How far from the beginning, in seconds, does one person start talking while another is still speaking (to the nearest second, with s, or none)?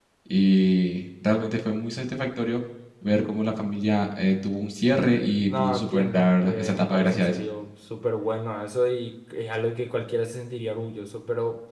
5 s